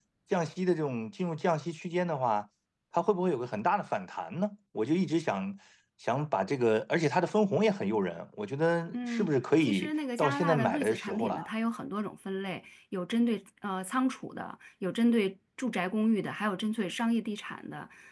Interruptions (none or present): present